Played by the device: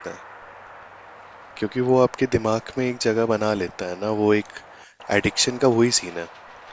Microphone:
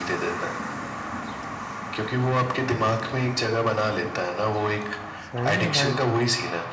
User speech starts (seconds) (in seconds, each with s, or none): 5.2 s